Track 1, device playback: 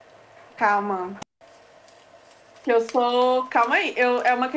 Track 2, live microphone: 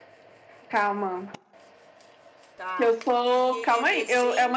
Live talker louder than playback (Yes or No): No